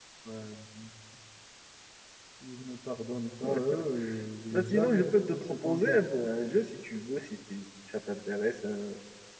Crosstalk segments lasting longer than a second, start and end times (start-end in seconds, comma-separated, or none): 4.5-6.0